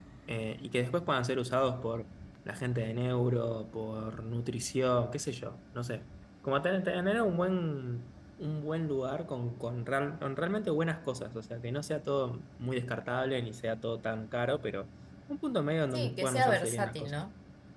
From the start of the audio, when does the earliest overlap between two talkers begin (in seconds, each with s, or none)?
15.9 s